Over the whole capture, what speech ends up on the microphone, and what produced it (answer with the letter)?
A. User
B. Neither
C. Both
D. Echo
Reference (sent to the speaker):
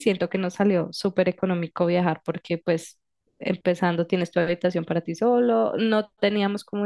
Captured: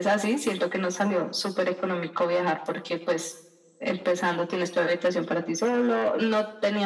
D